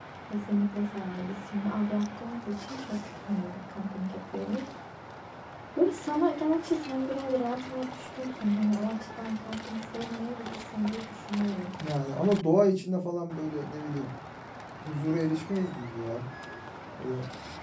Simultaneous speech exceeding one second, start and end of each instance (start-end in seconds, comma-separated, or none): none